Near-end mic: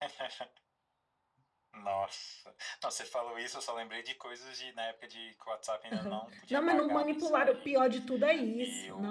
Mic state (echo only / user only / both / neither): both